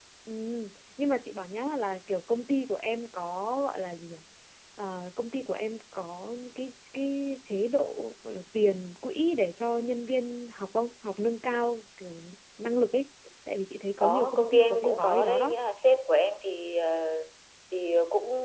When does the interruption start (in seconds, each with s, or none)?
14.0 s